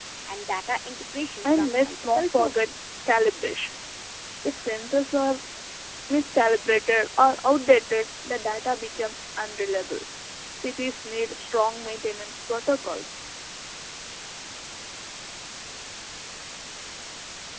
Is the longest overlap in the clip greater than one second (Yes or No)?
Yes